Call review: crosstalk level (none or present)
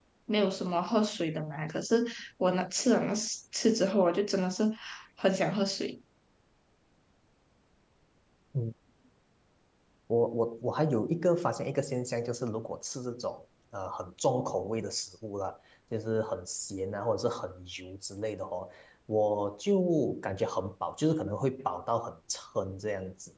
none